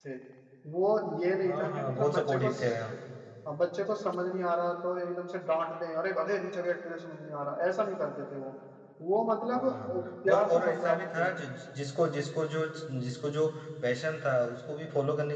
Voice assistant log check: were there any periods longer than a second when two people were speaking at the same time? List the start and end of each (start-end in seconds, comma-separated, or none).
1.4-2.7, 9.5-11.3